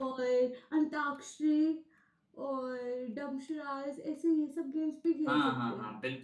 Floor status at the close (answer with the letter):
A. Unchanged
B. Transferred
B